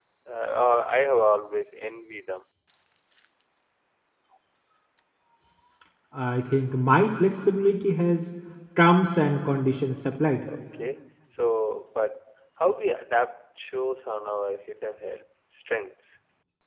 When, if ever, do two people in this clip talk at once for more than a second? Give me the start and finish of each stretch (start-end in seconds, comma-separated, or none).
none